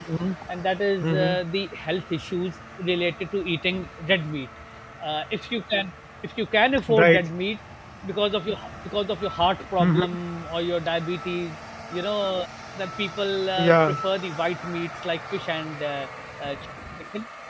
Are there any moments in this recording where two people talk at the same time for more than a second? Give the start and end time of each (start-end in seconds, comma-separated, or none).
none